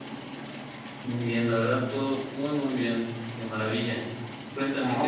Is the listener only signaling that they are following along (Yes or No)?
No